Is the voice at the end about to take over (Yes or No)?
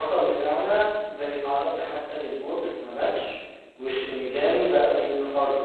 No